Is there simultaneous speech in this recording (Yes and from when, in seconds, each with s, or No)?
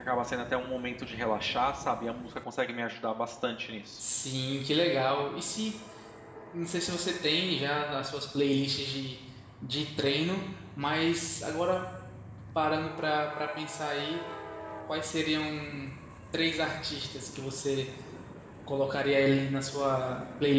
No